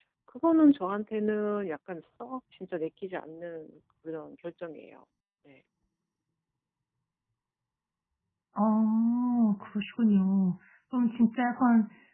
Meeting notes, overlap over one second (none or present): none